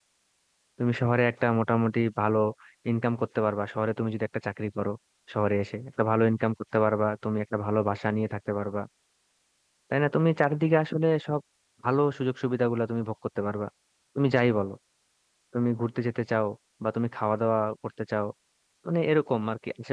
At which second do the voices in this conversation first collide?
none

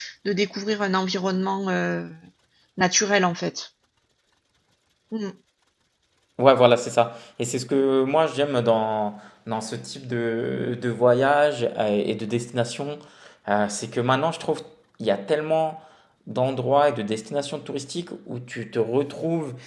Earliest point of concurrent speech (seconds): none

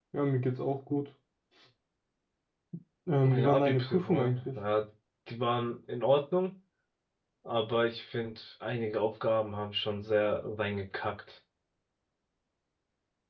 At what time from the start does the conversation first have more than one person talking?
3.2 s

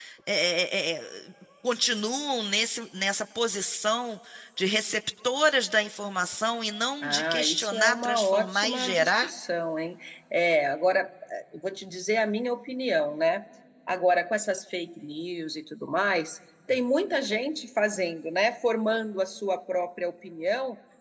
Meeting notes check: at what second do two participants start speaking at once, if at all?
7.0 s

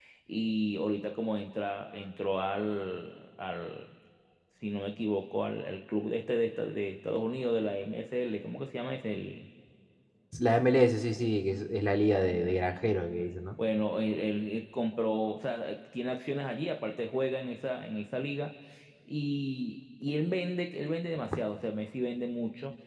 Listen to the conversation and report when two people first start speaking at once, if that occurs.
none

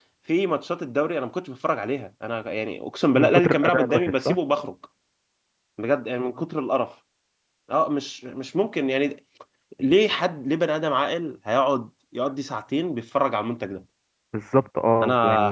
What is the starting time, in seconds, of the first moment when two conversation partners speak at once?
3.2 s

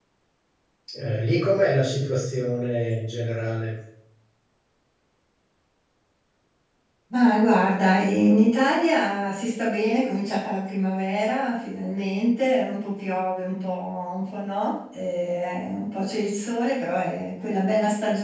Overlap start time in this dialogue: none

